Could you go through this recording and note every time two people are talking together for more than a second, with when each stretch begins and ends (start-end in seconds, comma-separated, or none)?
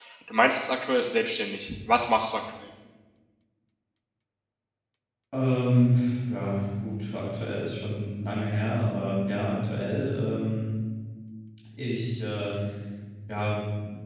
none